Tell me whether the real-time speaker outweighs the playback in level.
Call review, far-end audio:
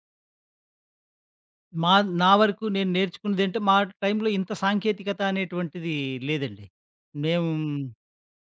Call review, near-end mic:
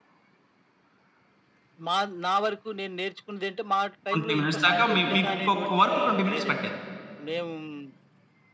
Yes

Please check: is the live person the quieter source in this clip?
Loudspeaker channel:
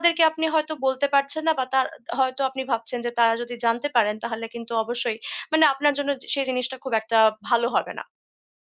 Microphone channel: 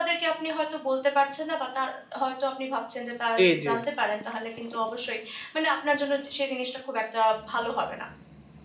No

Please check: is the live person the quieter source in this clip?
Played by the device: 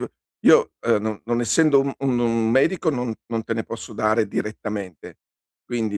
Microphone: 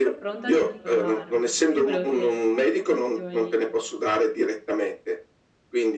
Yes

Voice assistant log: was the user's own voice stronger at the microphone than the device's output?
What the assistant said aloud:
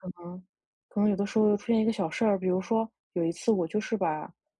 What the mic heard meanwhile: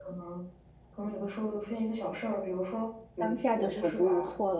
Yes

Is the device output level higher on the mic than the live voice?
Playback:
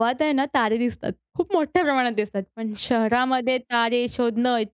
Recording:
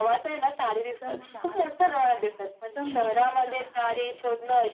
Yes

